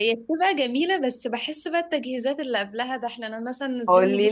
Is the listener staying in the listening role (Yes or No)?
No